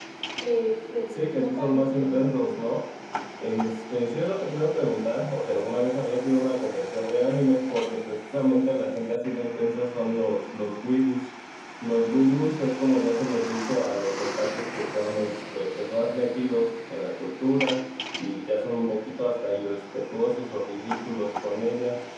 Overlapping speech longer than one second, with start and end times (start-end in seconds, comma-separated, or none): 1.1-2.6